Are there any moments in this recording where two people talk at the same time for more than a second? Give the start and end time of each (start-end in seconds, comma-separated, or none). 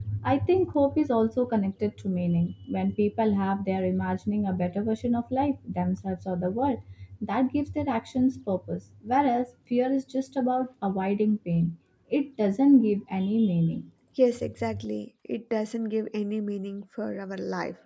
none